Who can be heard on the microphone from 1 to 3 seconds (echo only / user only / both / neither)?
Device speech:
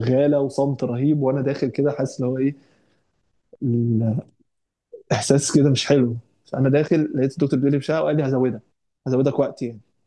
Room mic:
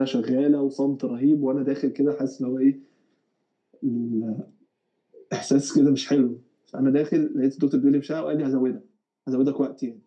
echo only